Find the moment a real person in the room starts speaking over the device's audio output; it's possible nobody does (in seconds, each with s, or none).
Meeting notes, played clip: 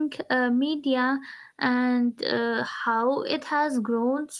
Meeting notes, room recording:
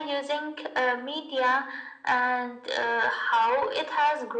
none